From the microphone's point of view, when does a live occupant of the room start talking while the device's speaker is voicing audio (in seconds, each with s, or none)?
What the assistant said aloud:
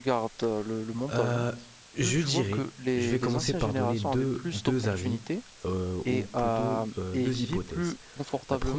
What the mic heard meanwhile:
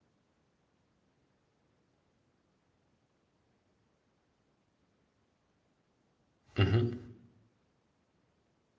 6.6 s